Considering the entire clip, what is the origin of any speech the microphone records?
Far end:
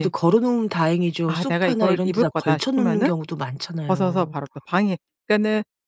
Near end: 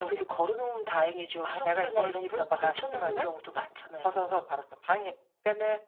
echo only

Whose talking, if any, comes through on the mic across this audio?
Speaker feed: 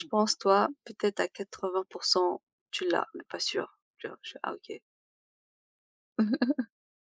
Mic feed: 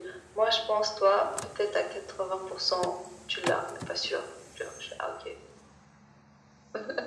echo only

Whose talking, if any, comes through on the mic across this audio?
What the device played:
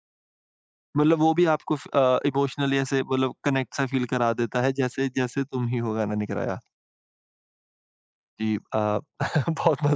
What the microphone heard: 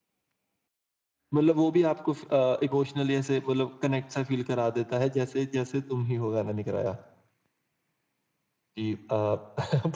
echo only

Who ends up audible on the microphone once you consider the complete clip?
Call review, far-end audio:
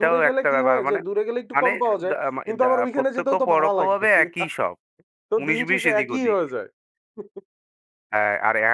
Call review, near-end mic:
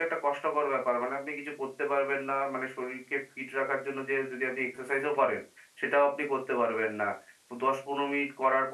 user only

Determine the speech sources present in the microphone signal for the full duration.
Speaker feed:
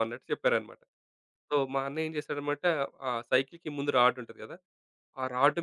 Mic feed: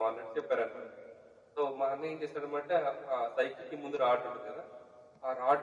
echo only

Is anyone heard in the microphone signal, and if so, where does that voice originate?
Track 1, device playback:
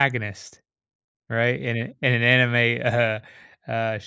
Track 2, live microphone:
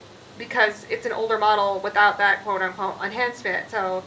user only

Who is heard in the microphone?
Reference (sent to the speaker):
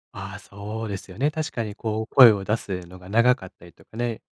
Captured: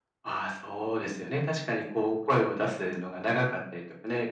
echo only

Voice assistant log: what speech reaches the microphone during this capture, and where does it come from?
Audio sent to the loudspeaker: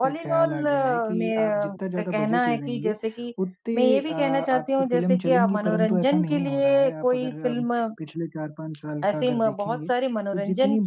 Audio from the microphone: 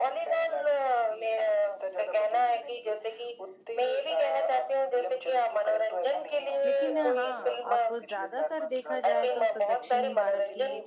both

